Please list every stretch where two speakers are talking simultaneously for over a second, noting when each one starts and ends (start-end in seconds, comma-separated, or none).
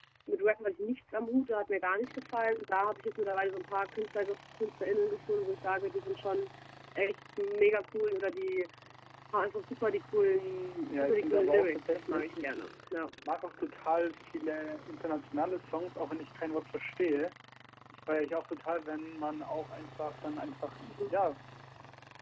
10.9-12.6